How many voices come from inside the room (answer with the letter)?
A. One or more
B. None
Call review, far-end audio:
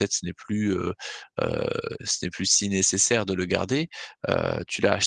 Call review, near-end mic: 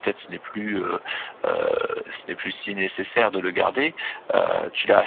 B